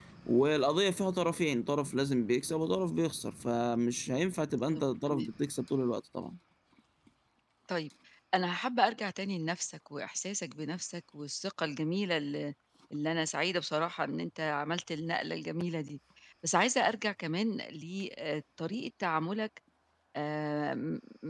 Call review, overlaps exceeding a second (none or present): none